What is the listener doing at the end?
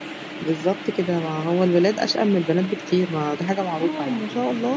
taking over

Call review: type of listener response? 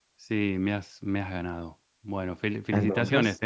listening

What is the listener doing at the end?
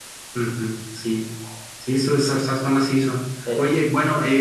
listening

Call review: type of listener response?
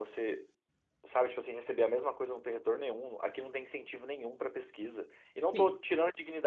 listening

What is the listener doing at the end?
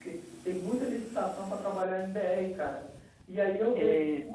listening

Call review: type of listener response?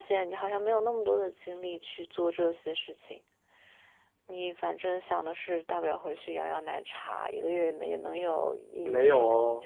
taking over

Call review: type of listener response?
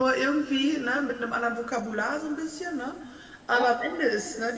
listening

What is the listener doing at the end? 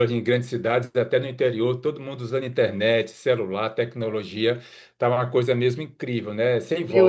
taking over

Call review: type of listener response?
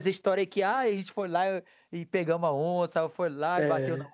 listening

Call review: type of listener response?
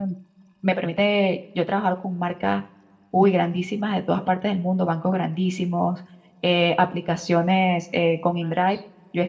listening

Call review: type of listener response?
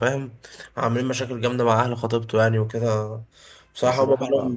listening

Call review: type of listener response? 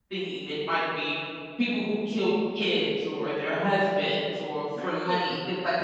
listening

